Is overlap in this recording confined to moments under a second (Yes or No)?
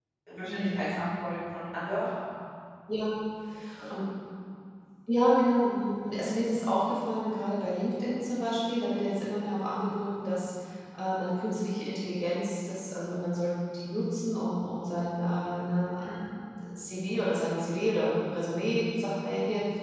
Yes